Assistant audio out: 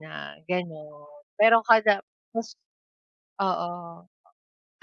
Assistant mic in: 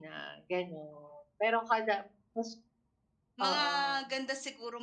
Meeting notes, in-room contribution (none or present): present